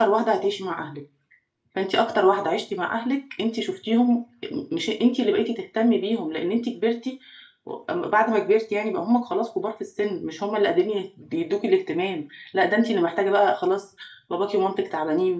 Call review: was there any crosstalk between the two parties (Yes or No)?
No